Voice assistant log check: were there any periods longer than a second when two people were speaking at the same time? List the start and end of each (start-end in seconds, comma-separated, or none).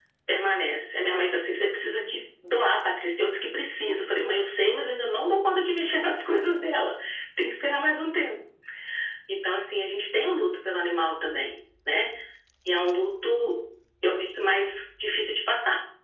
none